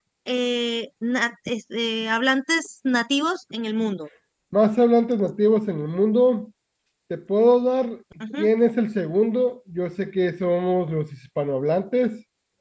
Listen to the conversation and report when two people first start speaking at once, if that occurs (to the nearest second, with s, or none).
none